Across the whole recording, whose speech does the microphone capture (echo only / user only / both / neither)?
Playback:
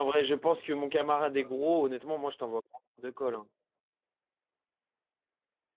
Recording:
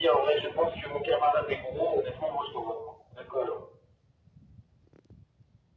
echo only